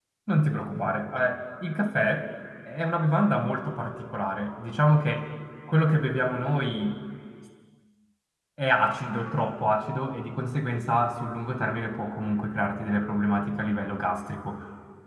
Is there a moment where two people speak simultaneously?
No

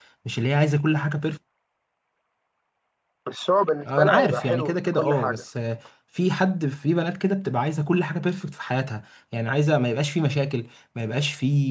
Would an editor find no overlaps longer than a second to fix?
No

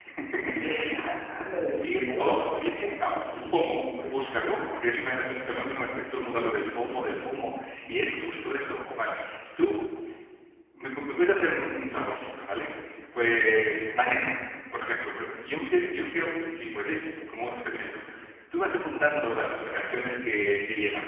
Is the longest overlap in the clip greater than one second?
Yes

